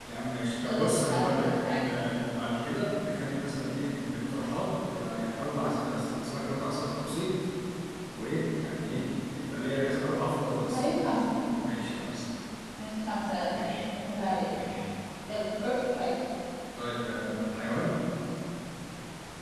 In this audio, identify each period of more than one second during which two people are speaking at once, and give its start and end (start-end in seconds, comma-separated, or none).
0.7-1.9